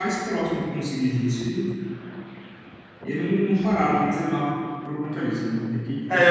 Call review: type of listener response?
taking over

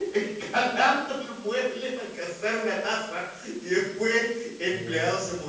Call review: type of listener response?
listening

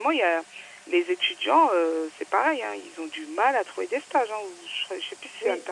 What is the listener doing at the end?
taking over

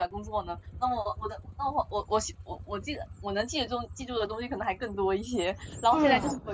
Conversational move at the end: listening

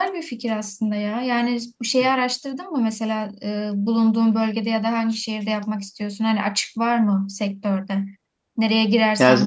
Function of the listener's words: listening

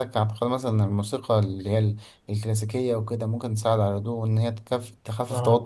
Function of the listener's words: listening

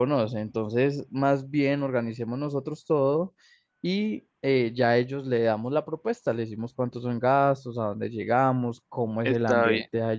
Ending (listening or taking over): listening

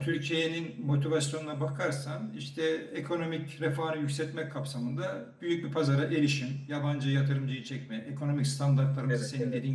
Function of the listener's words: listening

